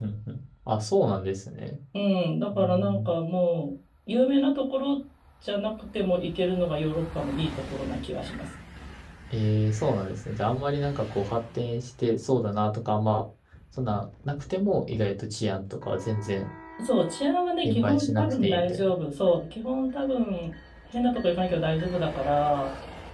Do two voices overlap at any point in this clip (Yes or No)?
Yes